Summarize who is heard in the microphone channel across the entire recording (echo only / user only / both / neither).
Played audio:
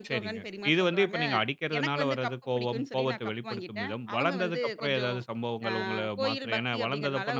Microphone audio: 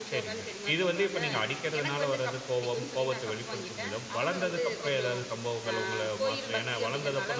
echo only